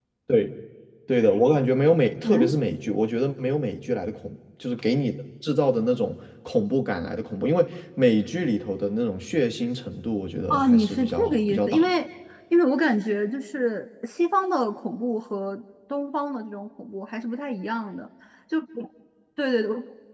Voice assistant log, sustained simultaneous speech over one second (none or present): present